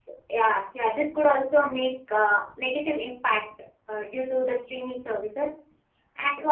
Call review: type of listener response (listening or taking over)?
listening